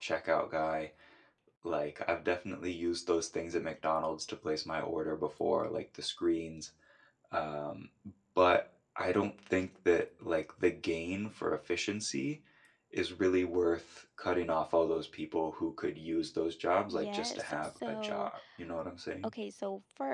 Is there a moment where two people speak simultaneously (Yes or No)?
Yes